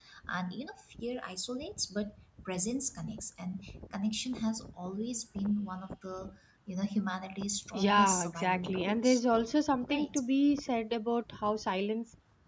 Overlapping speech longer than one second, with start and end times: 7.7-9.2

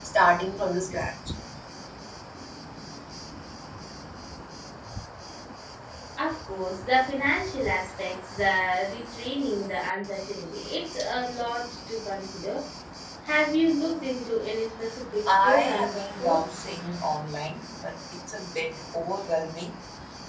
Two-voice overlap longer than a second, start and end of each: 15.3-16.5

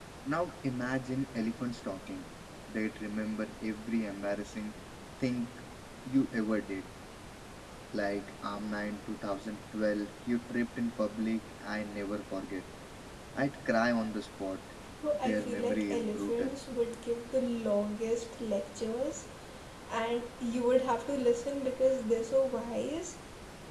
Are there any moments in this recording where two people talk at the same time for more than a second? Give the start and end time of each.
15.1-16.5

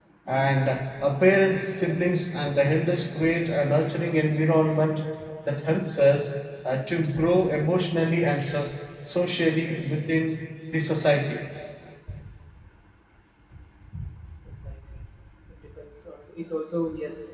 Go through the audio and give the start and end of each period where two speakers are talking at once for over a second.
none

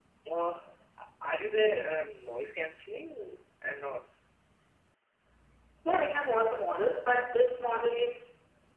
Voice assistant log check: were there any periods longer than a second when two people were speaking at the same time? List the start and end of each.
none

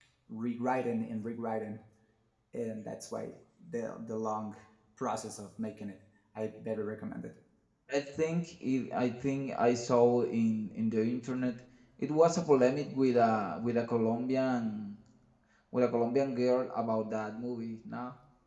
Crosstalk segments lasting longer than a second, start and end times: none

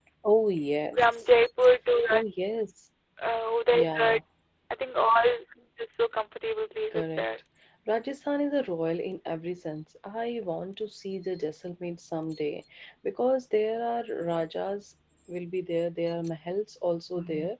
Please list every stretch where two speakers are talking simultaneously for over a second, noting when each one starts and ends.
none

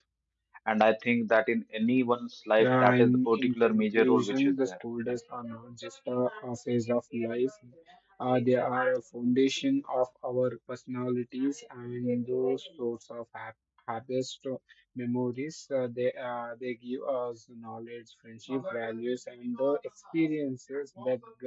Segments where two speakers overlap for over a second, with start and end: 2.6-4.7

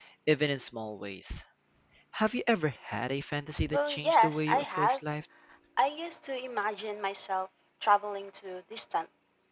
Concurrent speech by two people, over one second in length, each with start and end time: 3.7-5.0

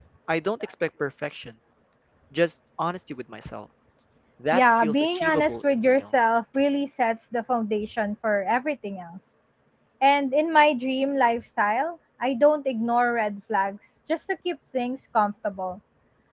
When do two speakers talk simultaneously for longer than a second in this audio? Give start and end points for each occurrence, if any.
4.5-6.0

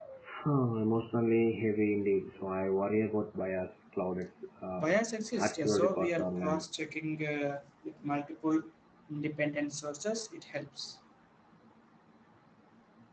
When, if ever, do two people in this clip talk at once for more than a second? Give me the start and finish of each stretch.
5.4-6.6

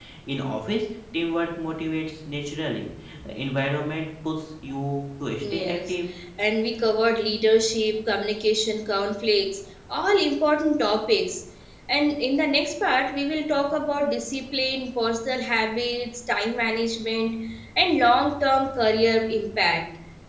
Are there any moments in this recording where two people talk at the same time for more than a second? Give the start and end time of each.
none

